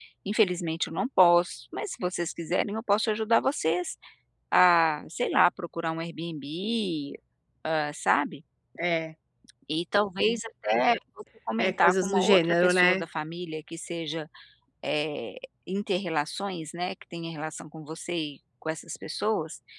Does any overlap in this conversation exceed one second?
Yes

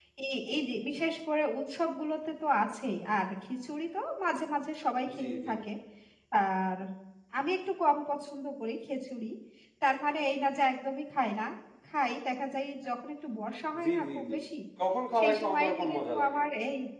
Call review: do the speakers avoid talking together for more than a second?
No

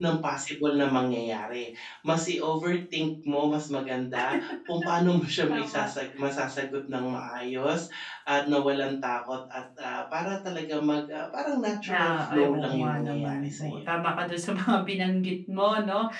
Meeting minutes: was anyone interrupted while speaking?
Yes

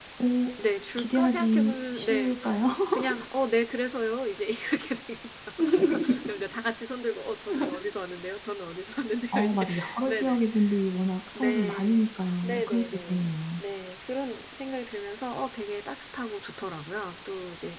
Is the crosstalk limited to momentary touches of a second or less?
No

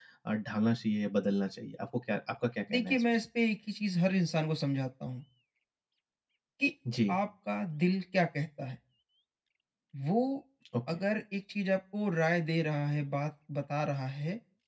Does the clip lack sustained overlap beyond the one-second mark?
Yes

